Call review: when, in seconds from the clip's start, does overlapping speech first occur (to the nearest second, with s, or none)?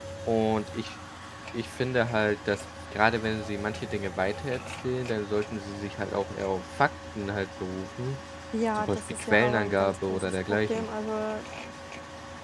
9 s